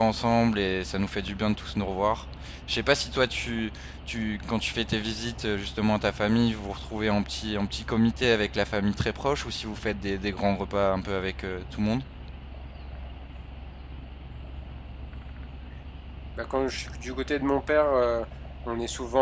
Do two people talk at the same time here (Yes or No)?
No